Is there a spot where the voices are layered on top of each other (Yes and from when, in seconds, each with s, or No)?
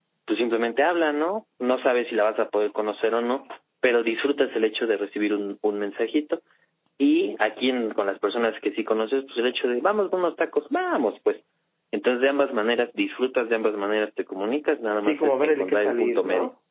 Yes, from 15.0 s